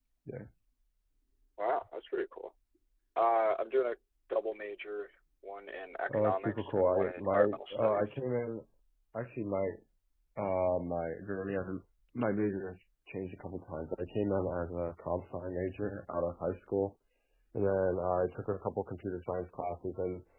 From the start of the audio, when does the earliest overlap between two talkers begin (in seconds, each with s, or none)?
6.1 s